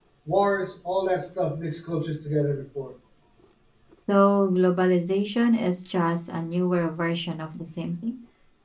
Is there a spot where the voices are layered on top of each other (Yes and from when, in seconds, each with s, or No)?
No